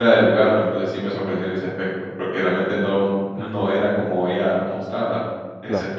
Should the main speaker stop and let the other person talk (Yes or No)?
Yes